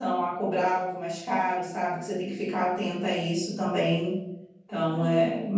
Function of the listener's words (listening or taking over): taking over